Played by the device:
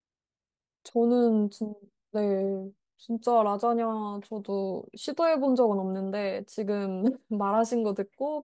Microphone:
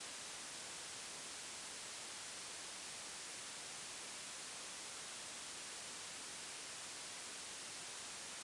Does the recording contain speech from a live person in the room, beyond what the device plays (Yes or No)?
No